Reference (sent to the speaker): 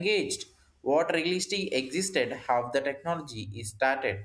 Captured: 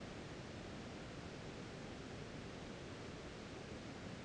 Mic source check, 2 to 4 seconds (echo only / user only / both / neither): neither